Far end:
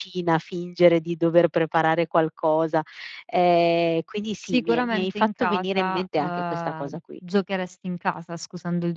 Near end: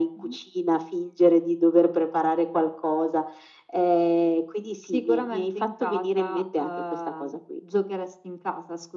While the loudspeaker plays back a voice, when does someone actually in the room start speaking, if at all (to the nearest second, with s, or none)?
none